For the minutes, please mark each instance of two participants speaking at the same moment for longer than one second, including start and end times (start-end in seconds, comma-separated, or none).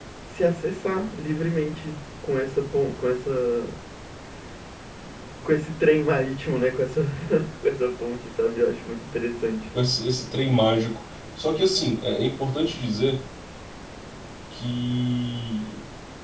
none